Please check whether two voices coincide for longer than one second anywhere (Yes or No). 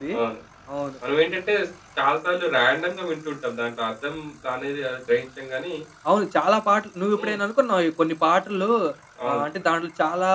No